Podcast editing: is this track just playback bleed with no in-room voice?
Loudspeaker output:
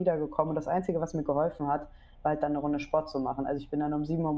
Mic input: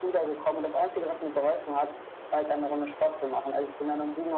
Yes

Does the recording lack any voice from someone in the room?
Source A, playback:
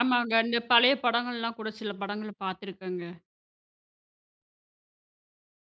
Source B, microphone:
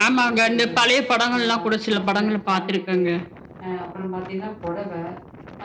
No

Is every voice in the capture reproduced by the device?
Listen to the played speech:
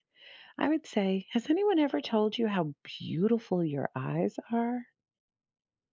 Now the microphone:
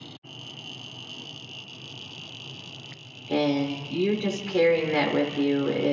No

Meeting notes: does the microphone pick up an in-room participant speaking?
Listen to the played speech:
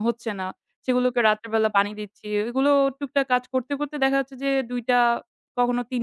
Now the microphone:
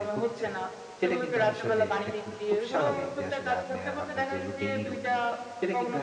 Yes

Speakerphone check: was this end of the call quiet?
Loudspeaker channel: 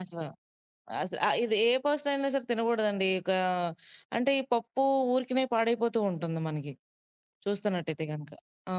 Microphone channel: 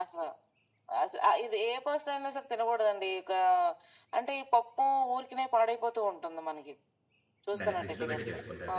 No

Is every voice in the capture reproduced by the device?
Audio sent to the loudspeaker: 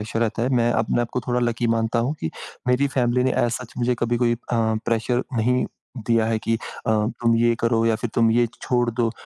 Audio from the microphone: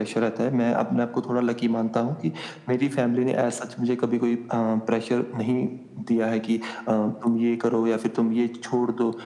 Yes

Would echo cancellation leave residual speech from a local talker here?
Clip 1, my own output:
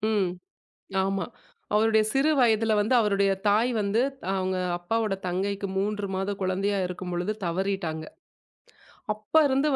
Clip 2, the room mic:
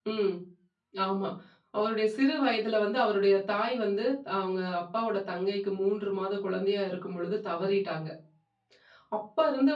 No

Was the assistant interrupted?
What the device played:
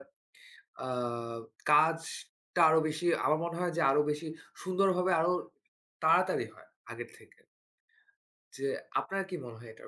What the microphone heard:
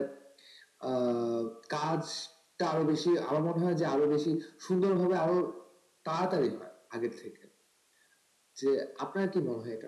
No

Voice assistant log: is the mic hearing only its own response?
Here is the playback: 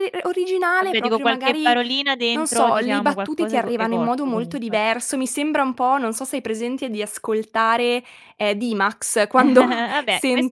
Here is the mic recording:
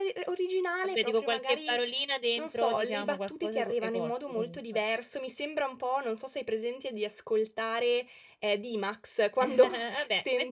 Yes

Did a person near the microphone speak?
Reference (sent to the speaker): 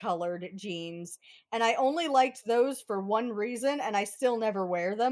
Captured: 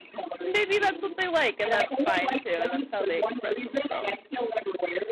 Yes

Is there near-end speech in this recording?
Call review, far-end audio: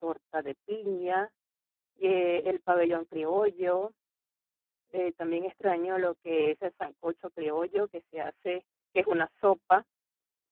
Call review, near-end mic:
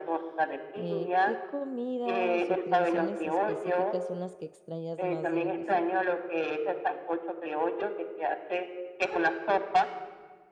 Yes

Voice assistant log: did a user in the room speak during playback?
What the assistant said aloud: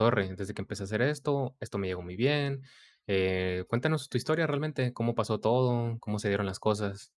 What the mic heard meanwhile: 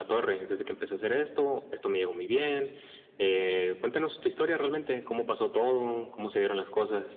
No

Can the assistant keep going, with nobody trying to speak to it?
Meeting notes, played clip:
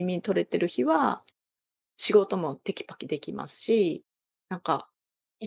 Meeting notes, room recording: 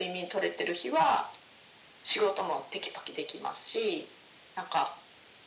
Yes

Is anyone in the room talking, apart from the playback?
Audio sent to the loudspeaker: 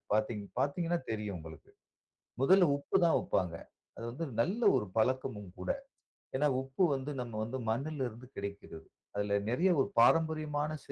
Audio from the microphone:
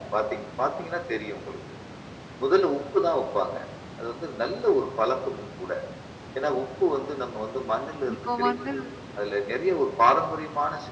Yes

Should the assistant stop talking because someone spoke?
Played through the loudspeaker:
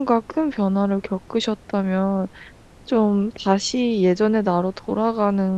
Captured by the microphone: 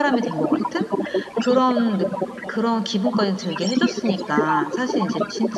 Yes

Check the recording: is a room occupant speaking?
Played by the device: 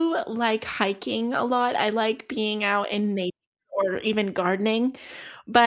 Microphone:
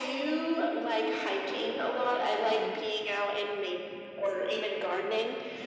Yes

